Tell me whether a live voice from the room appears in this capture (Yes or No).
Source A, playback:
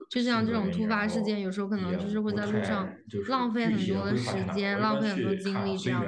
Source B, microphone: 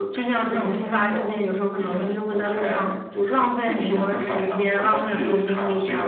No